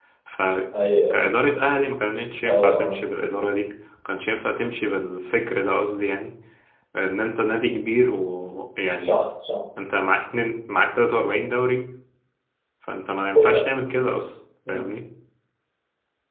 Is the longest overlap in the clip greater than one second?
No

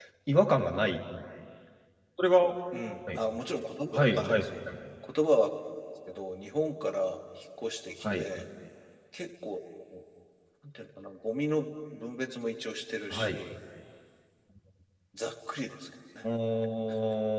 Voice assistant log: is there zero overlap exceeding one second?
Yes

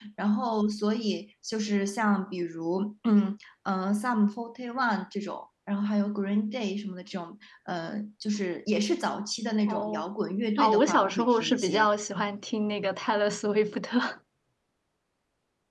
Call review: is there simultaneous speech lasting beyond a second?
Yes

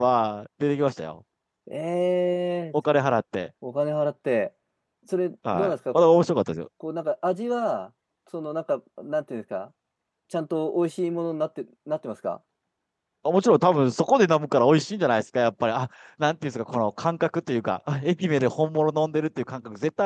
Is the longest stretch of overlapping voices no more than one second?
Yes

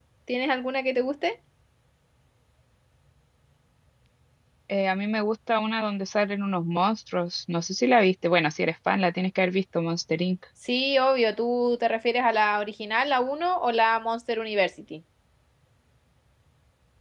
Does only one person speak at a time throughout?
Yes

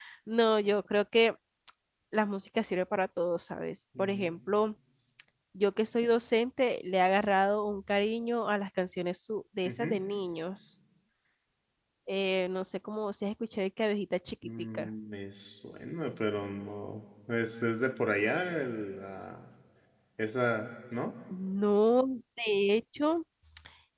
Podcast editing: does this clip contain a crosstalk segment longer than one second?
No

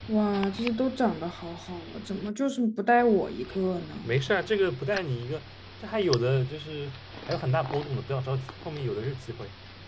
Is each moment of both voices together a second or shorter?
Yes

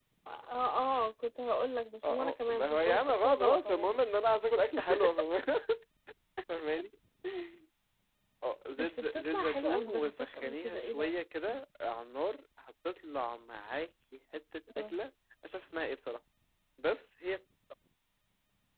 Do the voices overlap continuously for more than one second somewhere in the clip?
Yes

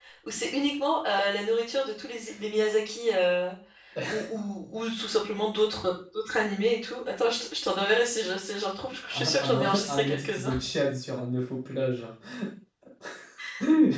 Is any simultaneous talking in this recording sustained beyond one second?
Yes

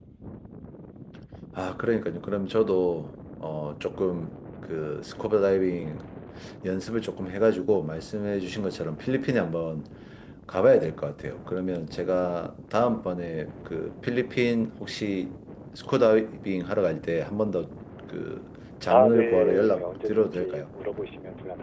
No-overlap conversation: No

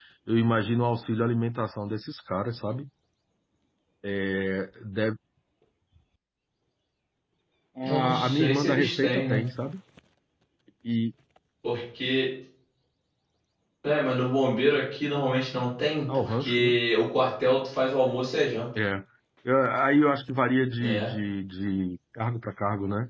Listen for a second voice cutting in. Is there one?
Yes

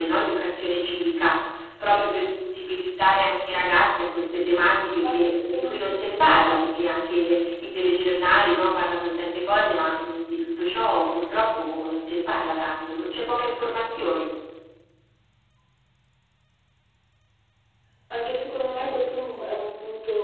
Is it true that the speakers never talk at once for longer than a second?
No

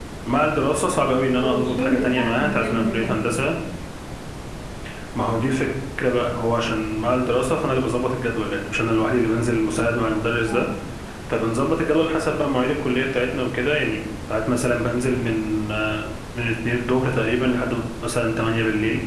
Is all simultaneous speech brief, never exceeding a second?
No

